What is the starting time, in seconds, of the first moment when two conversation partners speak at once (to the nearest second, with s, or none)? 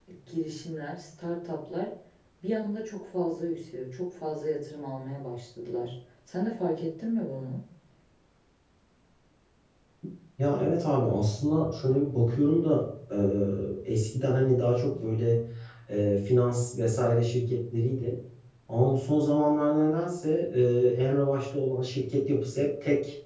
none